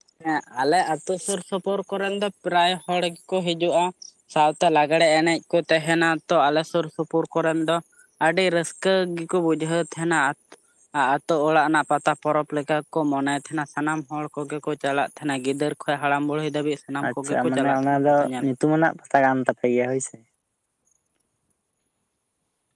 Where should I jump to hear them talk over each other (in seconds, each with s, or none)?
17.0 s